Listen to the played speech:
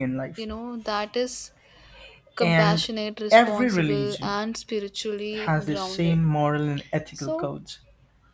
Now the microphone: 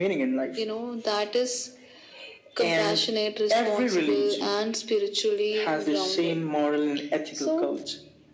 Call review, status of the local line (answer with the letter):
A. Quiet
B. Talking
A